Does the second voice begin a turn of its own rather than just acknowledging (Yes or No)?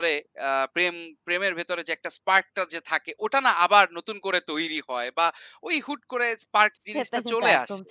Yes